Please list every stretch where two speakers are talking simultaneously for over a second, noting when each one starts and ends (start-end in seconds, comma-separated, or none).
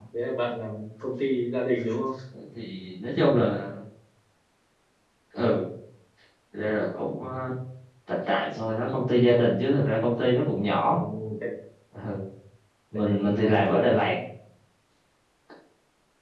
12.9-14.1